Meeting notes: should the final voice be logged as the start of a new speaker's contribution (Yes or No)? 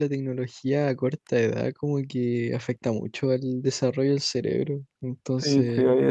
Yes